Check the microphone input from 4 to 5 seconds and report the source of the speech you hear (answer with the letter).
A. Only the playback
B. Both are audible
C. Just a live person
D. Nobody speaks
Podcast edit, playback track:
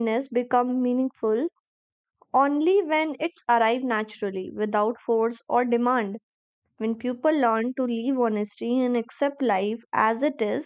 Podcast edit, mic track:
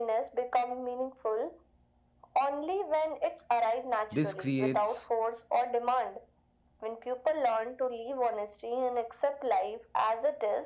B